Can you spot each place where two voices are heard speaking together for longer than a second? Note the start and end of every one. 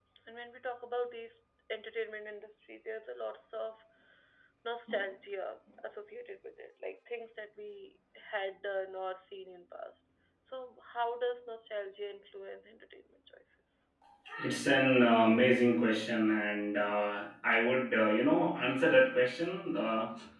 none

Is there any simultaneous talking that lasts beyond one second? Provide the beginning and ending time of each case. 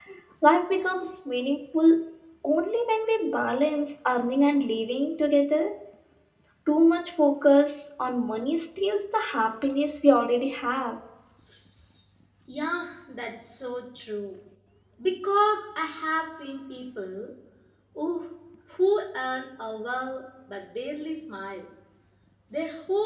none

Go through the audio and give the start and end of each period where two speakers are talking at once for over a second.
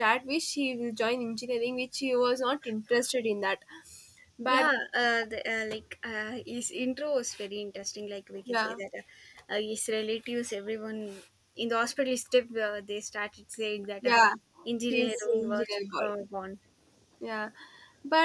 14.9-16.1

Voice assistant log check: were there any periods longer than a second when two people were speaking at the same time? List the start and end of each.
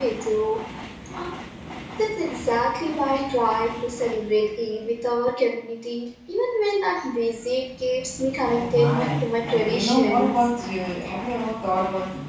8.5-10.5

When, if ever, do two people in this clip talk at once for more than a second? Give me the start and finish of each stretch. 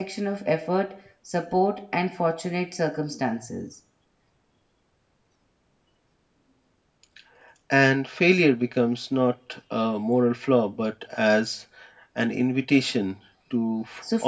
none

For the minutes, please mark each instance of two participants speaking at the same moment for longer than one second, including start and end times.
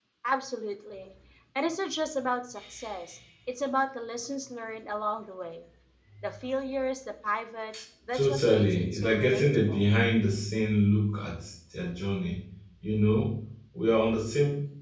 8.1-9.8

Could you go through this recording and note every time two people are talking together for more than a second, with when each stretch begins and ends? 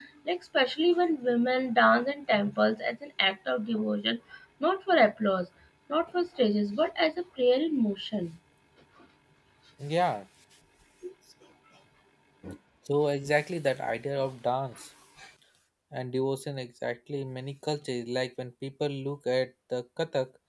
none

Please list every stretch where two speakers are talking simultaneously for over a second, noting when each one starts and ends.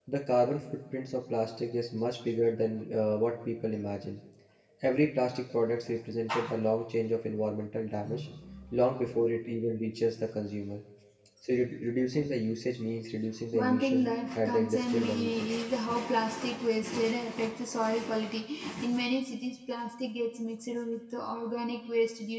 13.5-15.5

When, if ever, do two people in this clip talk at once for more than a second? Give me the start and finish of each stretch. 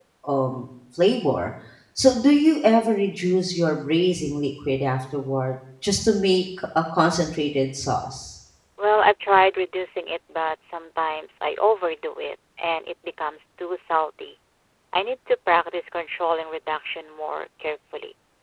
none

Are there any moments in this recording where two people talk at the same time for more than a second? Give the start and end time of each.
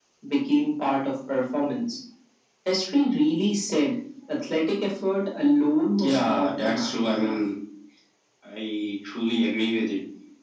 6.0-7.4

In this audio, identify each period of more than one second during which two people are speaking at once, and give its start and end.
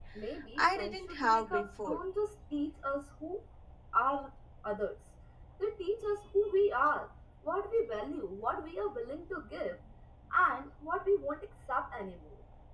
0.6-2.0

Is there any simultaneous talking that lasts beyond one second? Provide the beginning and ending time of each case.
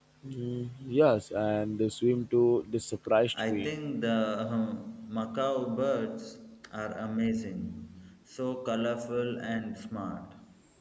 none

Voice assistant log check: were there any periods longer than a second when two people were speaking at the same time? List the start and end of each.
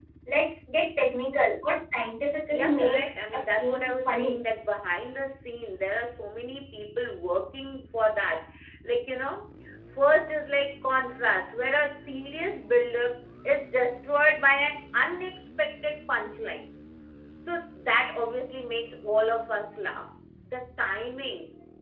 2.5-4.4

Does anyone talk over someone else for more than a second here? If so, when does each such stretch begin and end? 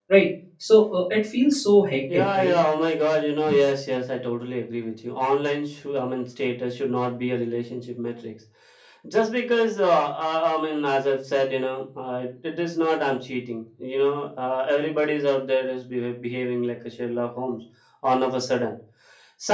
none

